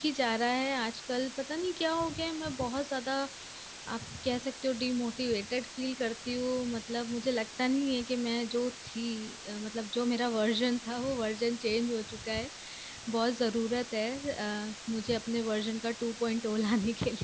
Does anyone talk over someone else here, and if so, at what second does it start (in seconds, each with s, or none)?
none